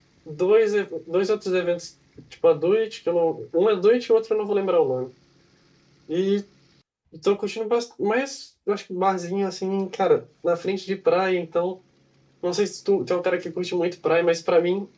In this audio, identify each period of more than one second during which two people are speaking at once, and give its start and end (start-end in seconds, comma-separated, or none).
none